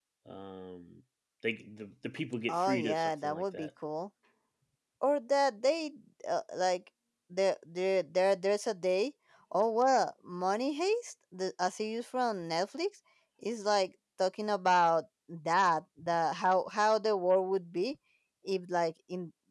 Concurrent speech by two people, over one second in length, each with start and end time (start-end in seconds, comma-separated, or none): 2.5-3.7